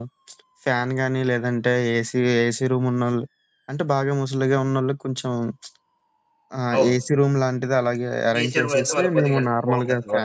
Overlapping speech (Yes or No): Yes